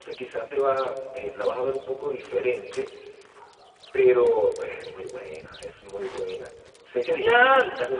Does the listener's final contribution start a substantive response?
No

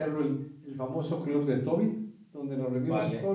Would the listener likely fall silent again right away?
Yes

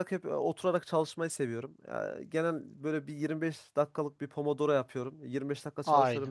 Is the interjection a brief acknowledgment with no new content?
Yes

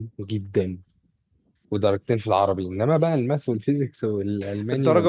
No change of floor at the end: No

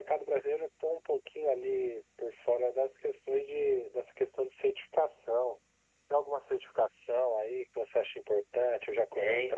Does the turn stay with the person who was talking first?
No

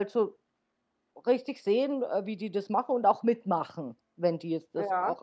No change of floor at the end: Yes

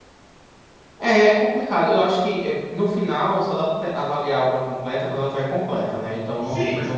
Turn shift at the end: Yes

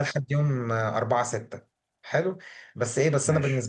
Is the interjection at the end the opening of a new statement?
No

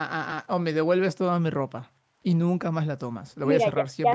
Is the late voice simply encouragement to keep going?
No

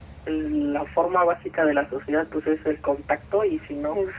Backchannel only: Yes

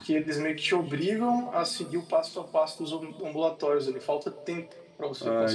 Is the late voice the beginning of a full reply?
Yes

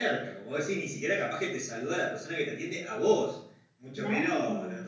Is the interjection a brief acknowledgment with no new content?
Yes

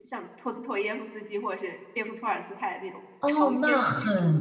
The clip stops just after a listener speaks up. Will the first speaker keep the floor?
No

